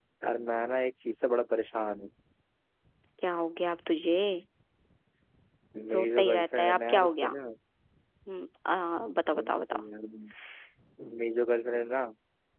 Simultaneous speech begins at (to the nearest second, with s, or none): 6 s